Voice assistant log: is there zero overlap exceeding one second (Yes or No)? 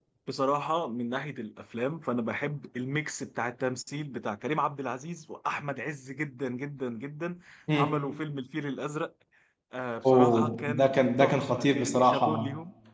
No